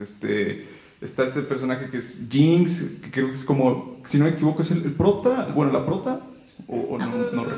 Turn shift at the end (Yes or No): Yes